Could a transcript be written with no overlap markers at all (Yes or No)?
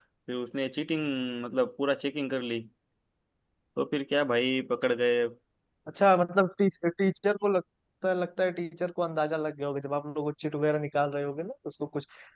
Yes